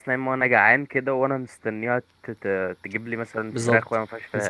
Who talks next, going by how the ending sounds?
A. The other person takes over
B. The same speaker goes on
A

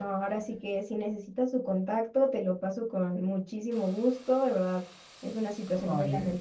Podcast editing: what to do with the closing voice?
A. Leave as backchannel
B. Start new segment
A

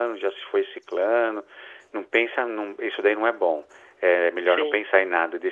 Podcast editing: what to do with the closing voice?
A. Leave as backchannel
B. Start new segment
A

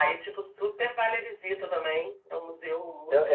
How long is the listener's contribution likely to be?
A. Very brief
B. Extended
B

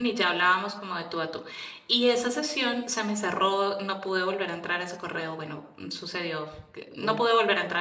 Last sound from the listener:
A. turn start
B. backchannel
B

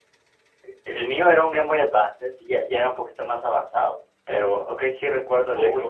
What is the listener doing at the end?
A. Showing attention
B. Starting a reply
B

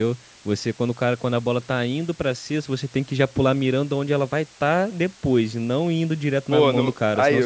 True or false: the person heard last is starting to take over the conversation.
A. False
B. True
B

